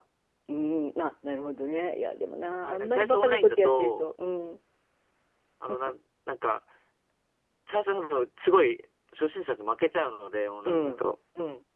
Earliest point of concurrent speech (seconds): 2.6 s

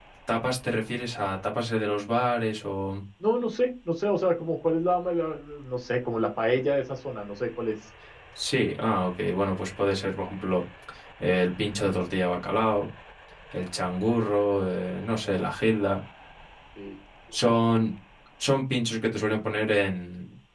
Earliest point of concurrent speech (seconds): none

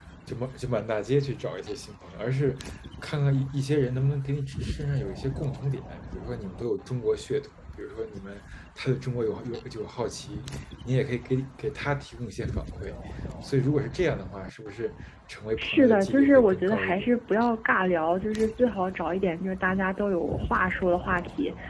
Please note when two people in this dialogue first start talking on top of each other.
15.6 s

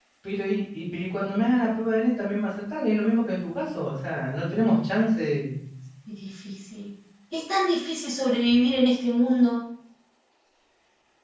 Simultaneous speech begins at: none

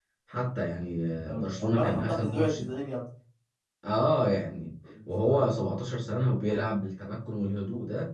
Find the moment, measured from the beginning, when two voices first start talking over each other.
1.3 s

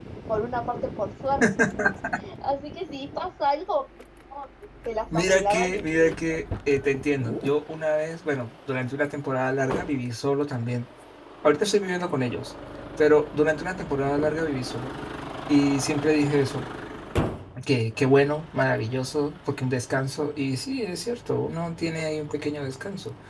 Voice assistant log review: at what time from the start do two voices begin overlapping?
5.1 s

